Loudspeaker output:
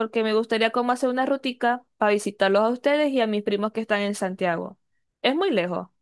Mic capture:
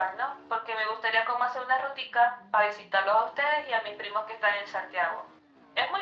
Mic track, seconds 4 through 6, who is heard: echo only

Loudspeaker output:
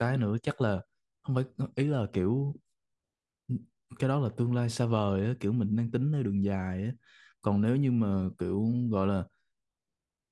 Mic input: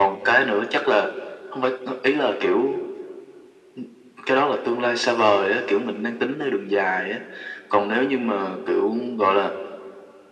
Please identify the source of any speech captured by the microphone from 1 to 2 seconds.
echo only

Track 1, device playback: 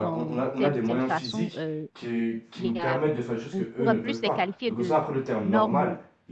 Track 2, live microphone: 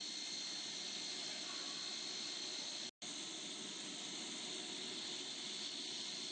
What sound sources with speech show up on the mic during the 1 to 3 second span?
neither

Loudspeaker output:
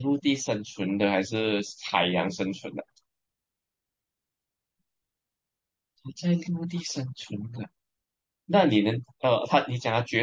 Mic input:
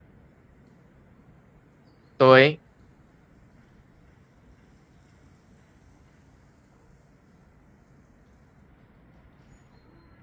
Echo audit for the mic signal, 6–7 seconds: neither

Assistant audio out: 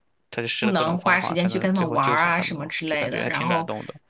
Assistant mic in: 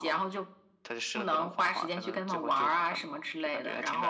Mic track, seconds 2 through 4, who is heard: echo only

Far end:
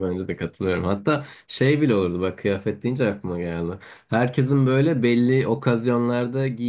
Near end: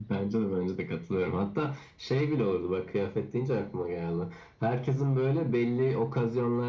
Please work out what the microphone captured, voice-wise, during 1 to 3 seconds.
echo only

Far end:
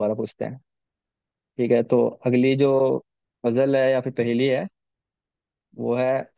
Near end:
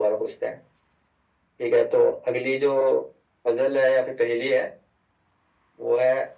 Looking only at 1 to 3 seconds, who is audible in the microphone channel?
echo only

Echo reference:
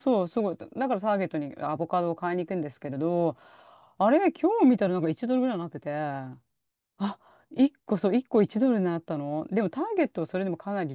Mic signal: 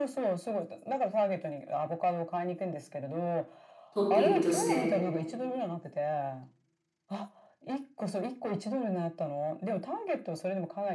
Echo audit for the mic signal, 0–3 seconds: echo only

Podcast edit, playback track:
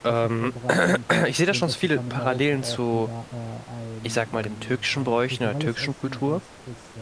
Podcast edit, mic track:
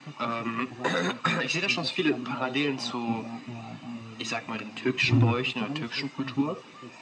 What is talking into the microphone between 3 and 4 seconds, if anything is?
echo only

